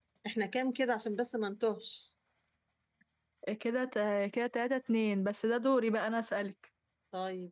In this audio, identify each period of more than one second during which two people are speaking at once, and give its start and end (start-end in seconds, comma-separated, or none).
none